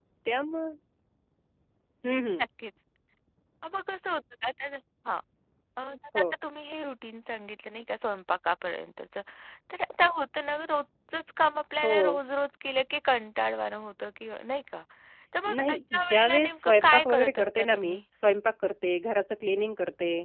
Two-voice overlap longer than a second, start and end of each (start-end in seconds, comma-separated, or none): 15.6-18.0